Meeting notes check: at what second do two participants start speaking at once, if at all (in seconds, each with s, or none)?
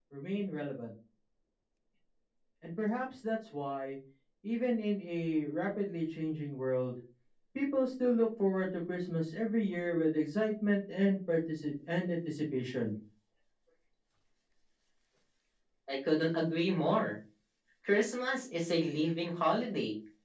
none